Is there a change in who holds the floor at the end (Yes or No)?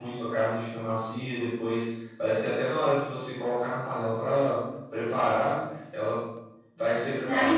Yes